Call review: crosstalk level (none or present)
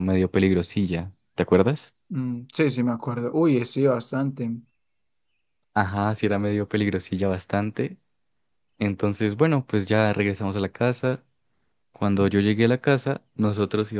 none